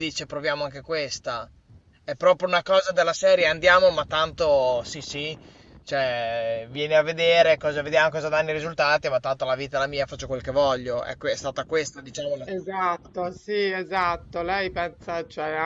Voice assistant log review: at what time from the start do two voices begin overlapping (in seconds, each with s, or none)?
none